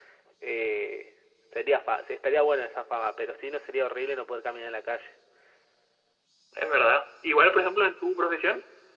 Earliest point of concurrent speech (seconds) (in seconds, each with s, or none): none